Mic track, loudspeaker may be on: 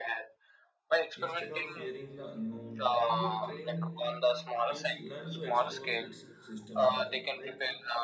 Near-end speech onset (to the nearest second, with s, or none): 1 s